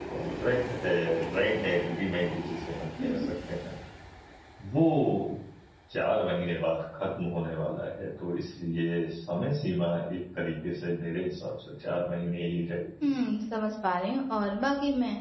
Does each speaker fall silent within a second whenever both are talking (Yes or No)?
Yes